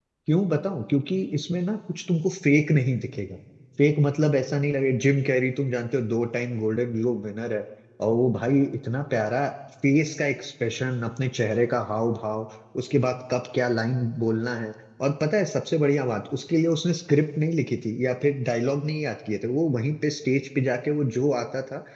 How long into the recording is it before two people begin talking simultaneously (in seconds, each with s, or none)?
none